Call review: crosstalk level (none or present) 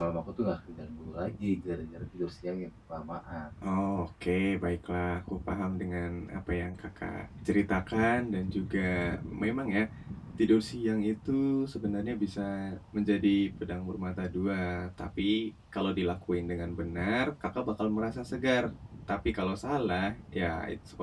none